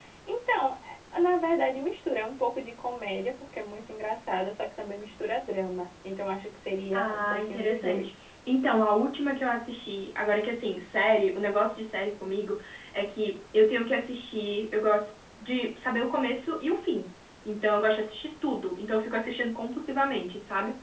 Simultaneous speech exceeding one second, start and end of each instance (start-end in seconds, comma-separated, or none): 6.9-8.1